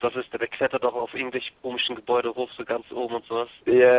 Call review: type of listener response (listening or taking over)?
taking over